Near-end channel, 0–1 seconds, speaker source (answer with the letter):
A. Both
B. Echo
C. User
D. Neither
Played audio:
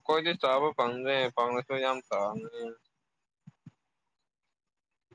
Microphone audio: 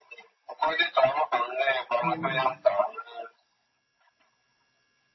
B